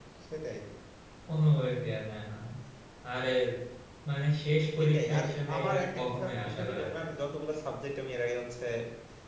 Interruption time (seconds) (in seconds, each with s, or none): 4.8 s